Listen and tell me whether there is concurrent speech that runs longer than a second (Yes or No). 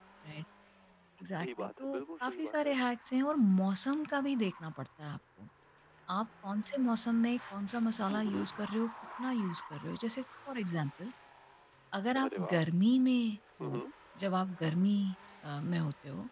Yes